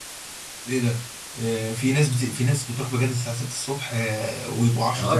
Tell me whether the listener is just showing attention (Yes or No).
No